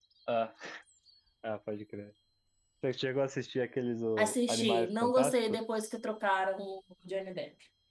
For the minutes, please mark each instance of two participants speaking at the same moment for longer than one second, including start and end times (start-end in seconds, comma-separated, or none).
4.2-5.6